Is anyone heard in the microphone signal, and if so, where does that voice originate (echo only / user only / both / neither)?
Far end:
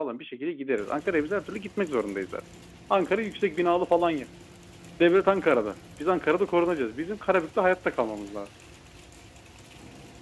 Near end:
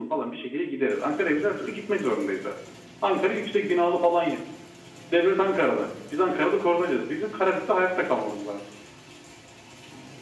echo only